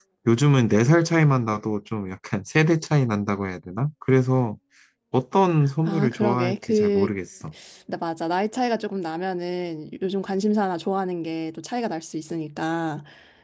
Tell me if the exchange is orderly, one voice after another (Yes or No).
No